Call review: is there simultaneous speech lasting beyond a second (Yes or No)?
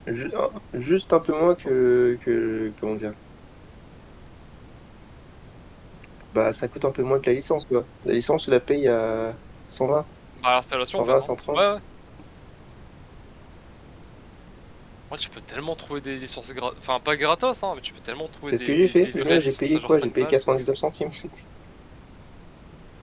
Yes